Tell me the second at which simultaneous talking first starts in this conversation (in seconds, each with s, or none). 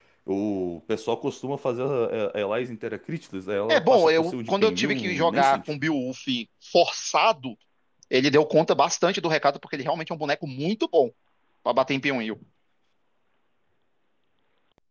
3.7 s